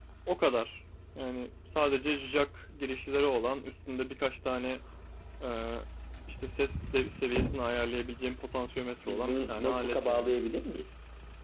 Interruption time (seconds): 9 s

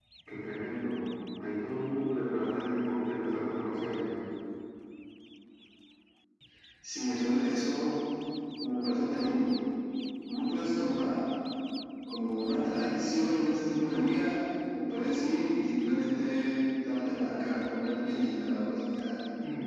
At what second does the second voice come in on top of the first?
none

